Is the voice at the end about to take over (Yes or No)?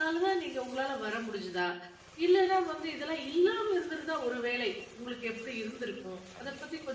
No